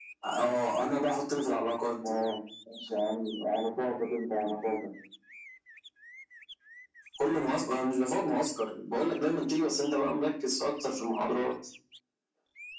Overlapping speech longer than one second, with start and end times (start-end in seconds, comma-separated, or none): none